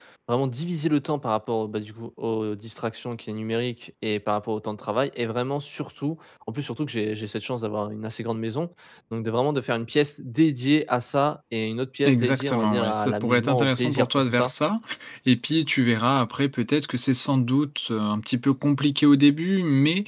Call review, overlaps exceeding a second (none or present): present